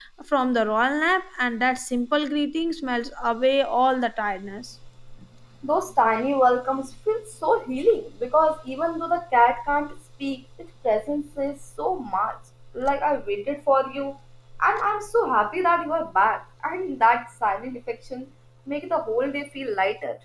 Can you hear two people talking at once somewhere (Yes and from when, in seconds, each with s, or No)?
No